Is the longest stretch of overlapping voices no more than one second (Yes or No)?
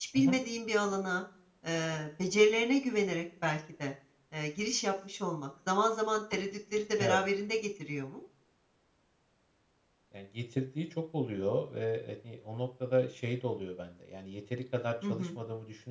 Yes